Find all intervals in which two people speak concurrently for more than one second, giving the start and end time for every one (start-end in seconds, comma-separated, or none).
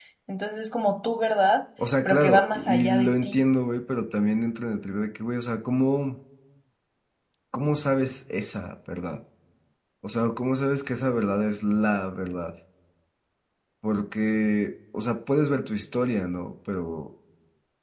2.0-3.4